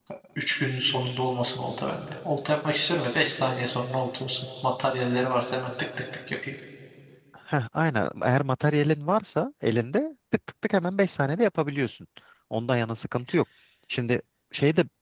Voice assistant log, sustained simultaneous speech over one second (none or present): none